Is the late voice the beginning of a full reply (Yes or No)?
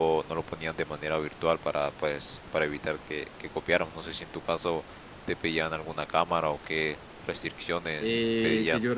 Yes